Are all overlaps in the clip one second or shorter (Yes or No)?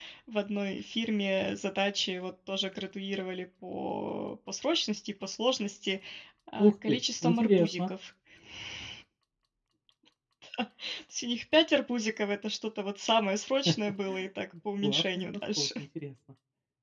No